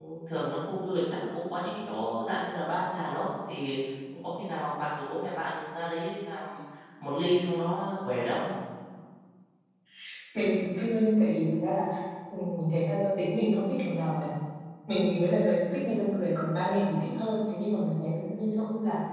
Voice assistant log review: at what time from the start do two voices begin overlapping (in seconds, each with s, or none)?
none